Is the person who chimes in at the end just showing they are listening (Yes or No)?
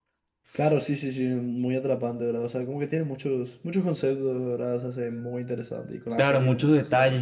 No